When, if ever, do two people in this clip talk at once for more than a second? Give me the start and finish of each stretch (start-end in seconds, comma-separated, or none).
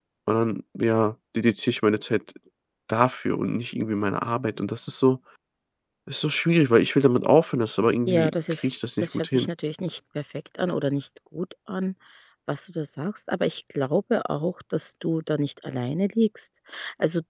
8.1-9.5